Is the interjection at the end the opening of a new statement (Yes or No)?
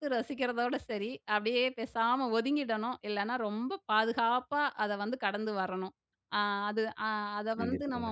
No